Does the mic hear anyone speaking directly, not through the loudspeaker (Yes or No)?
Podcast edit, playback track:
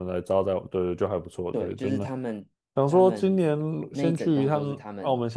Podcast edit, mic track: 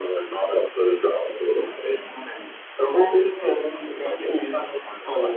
No